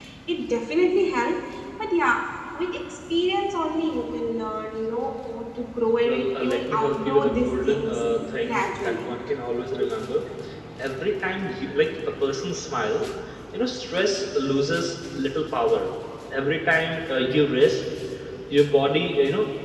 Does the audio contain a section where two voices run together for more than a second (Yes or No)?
Yes